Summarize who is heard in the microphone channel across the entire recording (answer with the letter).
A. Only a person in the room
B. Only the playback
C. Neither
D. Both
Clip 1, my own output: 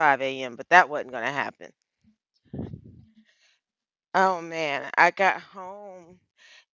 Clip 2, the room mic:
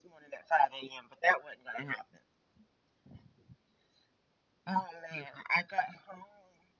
B